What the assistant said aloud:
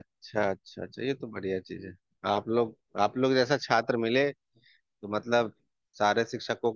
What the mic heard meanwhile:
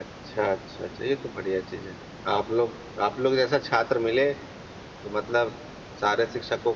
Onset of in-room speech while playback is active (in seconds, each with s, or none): none